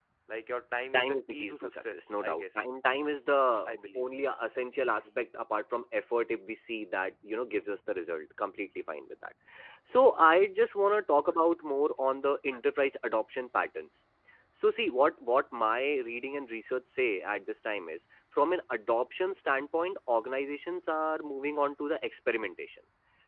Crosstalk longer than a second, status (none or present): present